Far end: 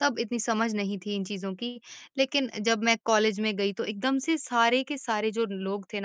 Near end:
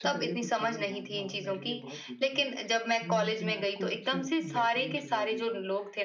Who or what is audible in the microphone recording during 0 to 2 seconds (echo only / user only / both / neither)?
both